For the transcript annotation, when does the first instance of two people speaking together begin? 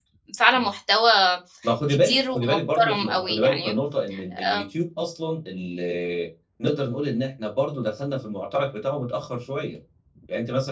1.9 s

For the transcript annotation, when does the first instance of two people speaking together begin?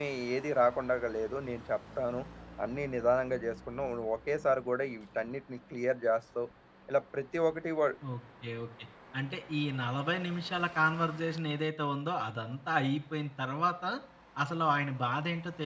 none

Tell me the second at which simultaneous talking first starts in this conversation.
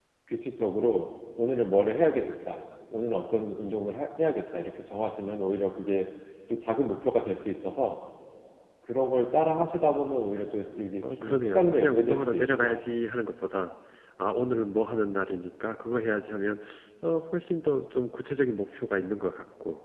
11.0 s

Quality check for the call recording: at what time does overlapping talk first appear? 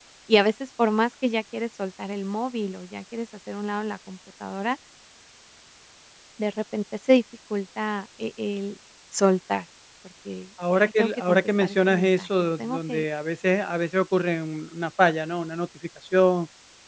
10.6 s

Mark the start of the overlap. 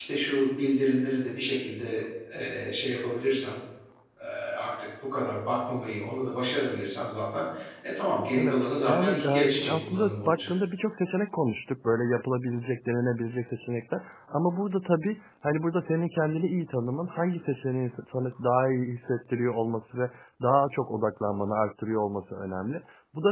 8.4 s

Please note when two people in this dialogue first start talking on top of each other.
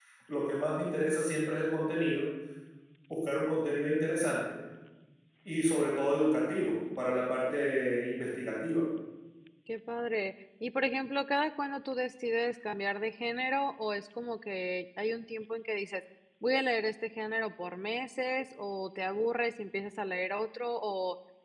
none

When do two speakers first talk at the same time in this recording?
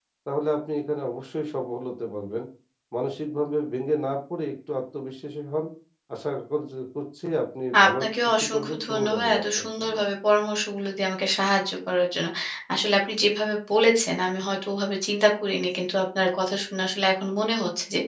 7.7 s

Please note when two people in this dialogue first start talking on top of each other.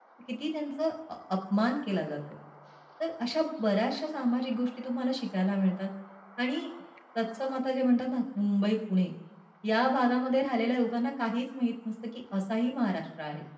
none

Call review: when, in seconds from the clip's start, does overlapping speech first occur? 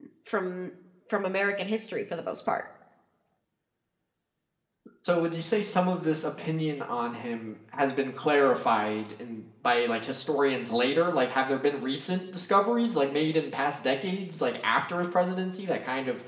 none

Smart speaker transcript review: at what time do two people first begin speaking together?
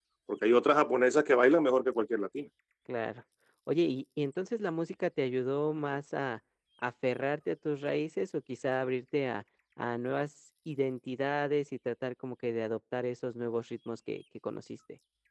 none

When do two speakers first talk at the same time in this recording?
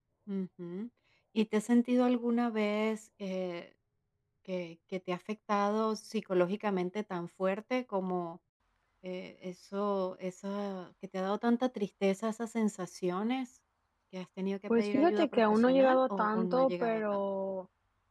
14.7 s

